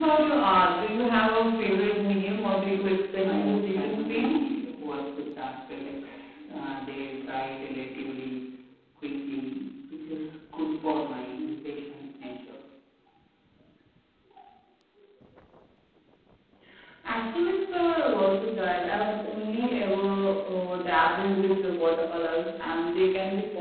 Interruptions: present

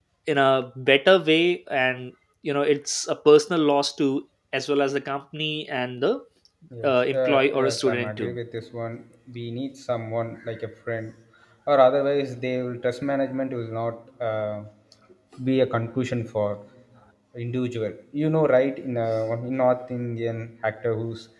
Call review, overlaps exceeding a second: present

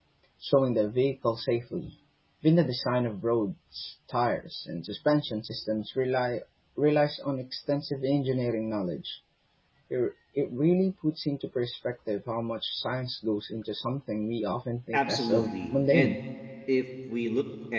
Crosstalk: present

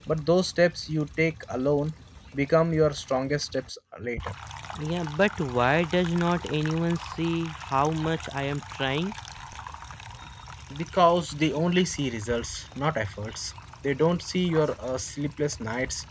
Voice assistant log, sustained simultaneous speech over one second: none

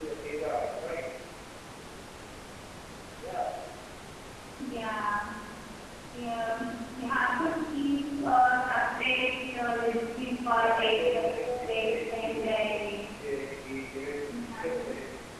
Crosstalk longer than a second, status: present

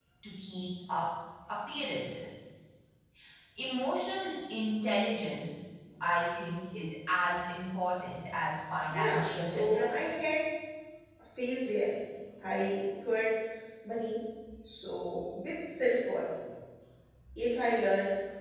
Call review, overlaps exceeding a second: present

